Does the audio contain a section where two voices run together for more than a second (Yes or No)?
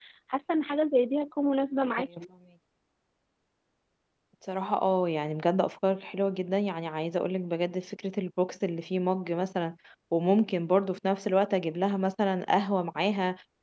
No